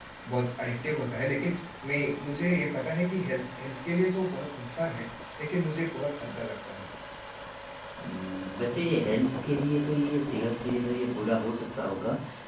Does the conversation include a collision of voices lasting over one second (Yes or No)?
No